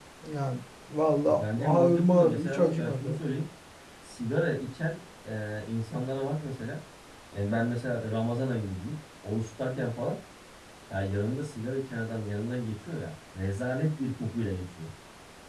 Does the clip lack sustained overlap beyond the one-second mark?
No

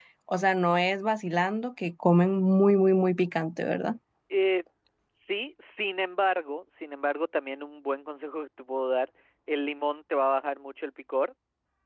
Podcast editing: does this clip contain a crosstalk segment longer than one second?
No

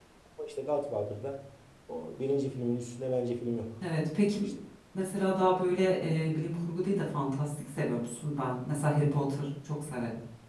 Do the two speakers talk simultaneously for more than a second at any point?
No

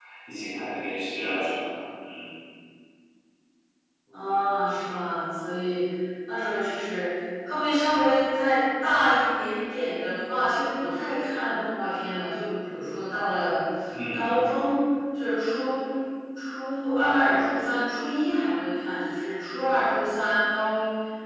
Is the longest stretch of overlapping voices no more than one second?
Yes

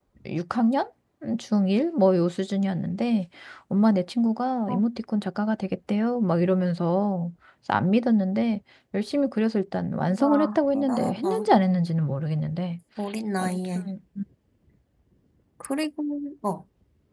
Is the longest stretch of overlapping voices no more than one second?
No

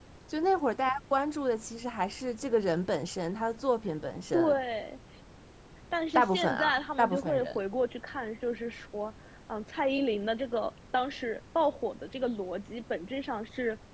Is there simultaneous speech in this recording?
Yes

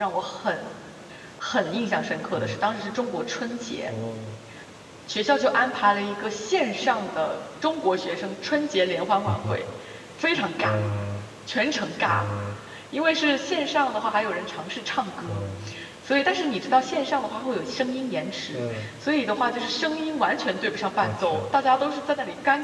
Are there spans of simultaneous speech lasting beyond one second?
No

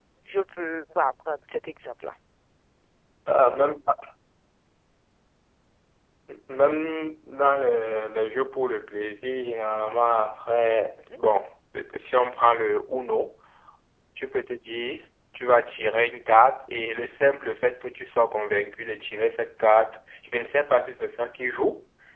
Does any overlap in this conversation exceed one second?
No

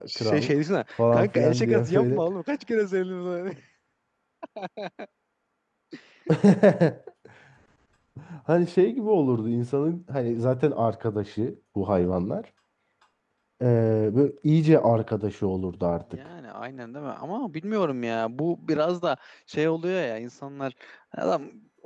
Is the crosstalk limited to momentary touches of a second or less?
No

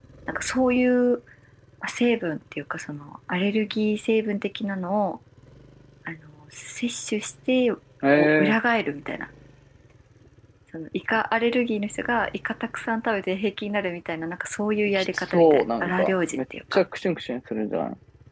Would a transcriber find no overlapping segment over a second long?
No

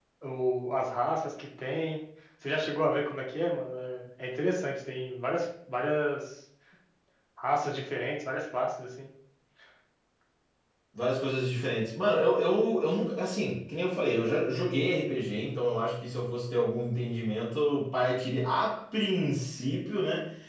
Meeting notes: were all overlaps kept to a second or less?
Yes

